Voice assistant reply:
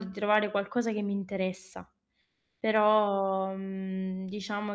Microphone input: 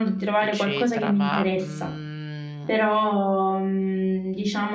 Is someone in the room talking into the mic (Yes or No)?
Yes